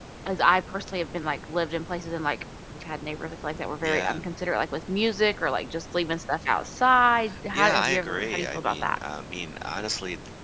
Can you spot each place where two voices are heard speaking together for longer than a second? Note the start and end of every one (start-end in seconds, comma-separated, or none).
7.5-9.0